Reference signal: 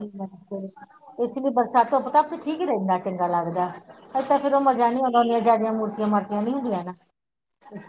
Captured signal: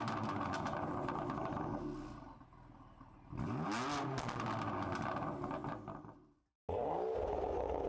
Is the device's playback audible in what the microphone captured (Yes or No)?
No